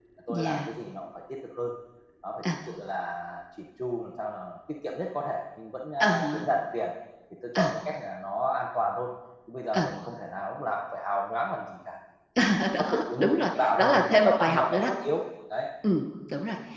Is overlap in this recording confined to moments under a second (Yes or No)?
No